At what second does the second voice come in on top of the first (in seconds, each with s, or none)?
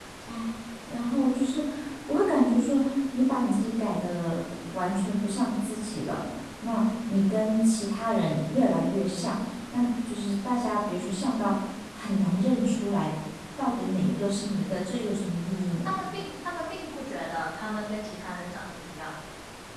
none